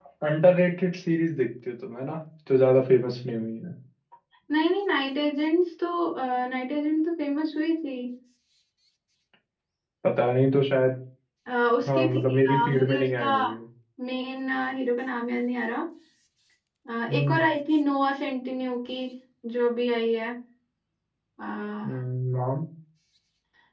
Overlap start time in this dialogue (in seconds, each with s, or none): 11.9 s